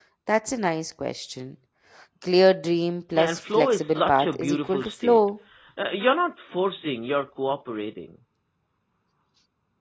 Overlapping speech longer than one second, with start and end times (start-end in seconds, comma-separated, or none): 3.2-5.2